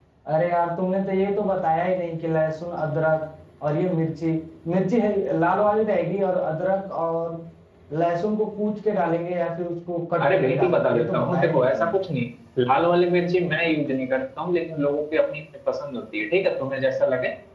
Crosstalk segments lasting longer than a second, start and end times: 10.2-12.0

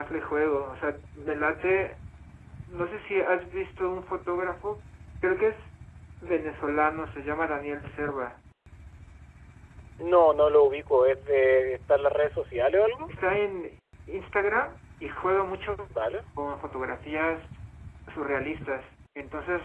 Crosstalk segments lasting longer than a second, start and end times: none

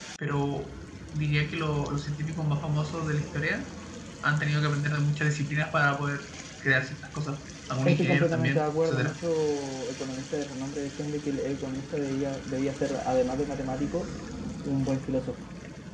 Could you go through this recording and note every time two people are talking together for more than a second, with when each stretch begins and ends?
7.8-9.1

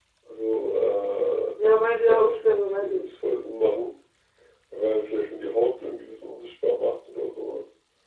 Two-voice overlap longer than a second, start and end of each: 1.6-3.0

